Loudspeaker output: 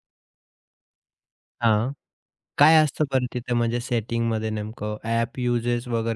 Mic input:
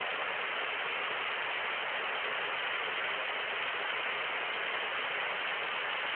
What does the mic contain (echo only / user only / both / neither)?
neither